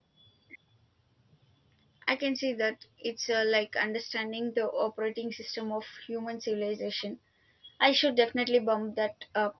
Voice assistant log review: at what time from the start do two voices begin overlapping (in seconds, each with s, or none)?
none